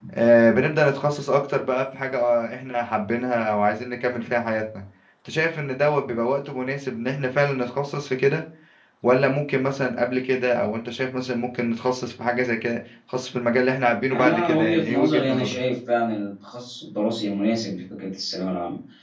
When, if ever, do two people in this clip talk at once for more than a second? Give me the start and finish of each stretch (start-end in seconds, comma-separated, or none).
14.1-15.6